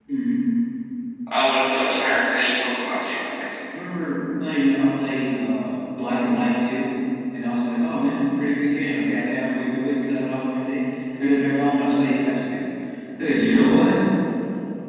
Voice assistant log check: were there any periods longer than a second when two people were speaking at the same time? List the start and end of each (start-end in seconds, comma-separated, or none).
none